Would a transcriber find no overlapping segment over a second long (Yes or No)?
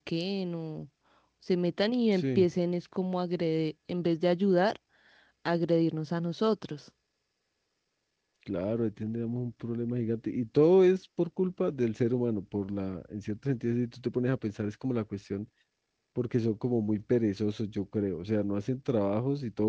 Yes